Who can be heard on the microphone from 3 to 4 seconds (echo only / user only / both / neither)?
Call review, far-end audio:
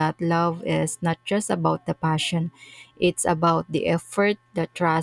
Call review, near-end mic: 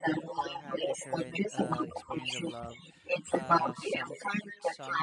both